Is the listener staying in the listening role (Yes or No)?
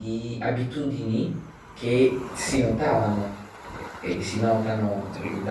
Yes